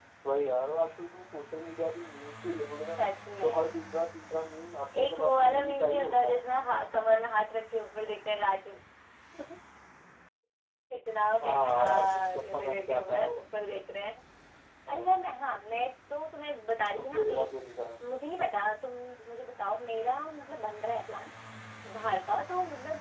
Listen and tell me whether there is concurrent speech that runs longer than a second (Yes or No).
Yes